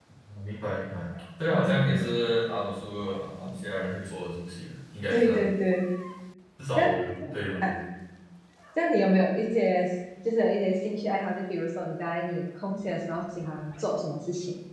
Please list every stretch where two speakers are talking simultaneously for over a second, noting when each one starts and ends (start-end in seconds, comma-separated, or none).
none